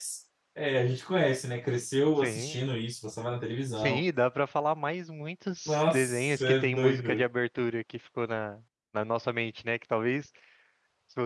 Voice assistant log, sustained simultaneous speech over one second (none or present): present